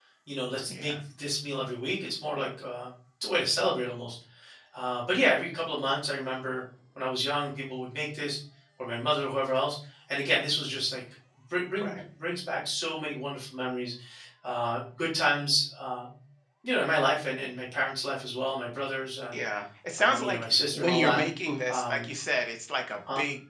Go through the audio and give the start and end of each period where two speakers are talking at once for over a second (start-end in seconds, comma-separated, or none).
20.0-21.2